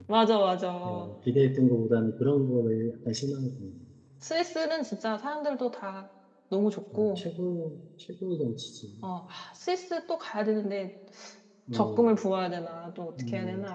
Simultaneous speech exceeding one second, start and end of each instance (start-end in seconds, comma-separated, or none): none